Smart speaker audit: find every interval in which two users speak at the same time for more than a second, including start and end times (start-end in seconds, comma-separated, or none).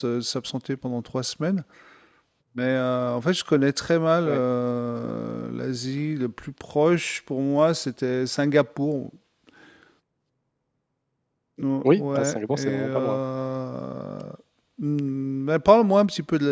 11.8-13.2